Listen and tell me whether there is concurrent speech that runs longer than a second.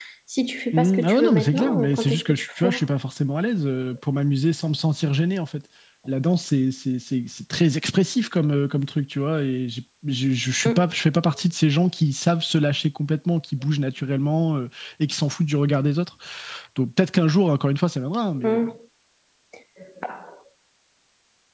Yes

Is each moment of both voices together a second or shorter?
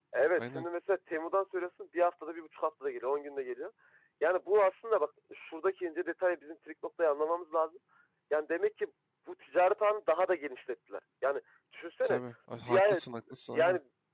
Yes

